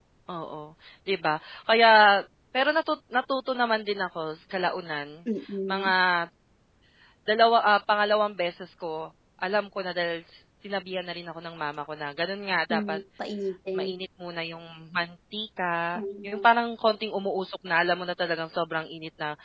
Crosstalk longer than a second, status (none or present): none